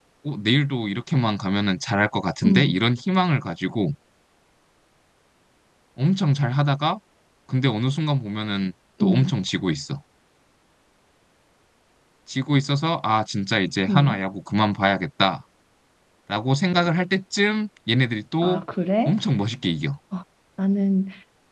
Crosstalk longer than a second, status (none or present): none